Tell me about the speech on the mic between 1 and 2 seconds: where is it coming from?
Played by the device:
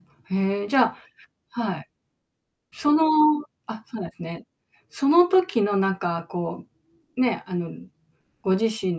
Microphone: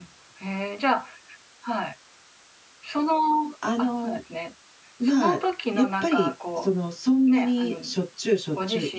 echo only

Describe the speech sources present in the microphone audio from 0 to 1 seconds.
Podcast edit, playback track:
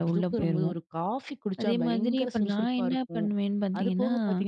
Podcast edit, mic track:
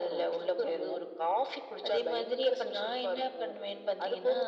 echo only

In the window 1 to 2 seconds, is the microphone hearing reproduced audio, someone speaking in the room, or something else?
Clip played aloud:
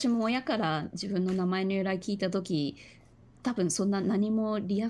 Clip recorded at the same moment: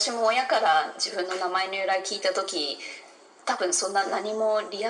echo only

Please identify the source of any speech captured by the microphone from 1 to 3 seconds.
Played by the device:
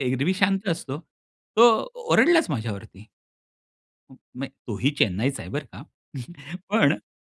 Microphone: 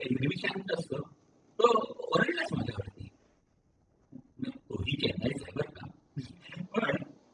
echo only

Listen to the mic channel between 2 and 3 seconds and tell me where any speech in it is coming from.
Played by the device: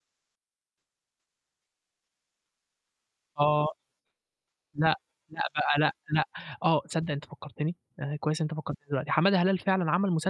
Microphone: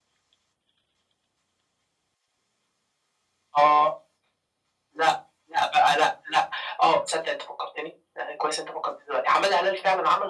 neither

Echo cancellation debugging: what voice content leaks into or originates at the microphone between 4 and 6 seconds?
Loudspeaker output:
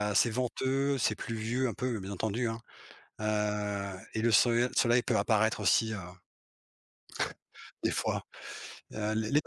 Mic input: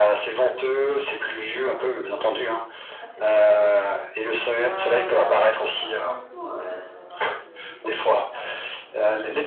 both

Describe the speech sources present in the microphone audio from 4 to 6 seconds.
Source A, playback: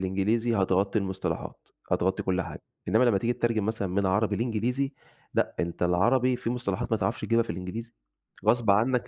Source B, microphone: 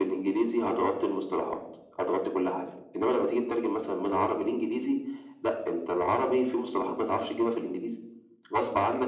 echo only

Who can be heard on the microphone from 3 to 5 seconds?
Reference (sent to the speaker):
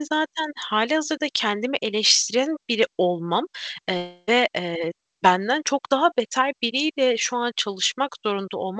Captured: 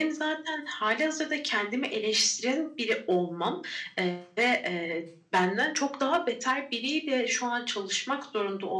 echo only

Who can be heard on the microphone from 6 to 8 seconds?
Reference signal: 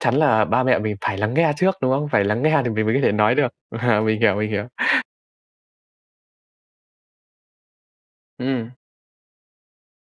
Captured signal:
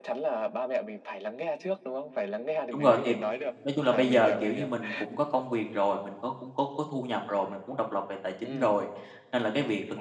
user only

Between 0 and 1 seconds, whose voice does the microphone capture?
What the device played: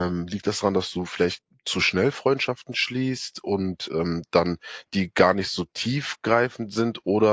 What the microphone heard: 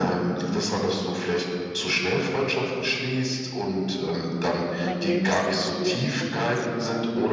echo only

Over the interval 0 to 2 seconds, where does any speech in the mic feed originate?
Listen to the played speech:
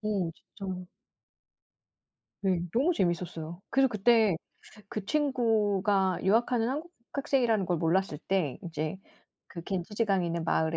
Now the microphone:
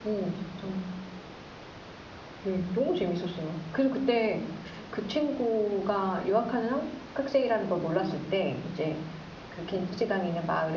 echo only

